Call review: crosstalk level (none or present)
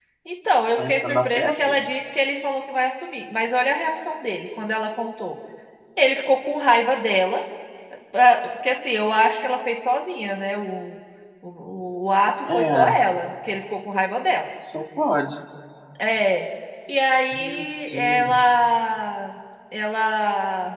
present